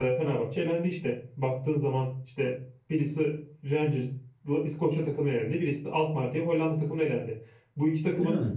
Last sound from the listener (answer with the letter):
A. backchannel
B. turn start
A